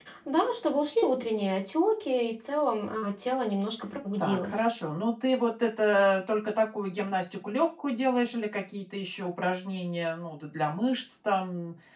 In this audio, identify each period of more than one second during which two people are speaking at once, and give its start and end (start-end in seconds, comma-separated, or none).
none